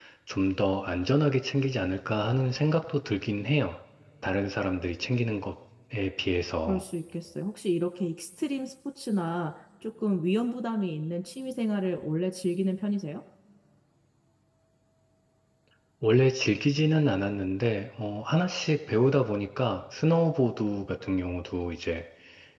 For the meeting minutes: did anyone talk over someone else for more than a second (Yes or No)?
No